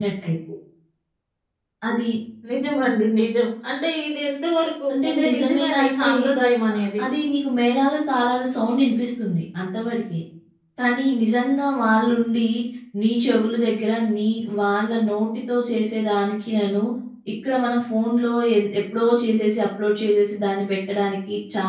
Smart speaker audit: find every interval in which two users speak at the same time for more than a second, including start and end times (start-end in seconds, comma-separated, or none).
4.9-6.1